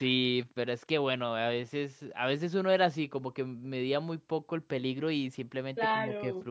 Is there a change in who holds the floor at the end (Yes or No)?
No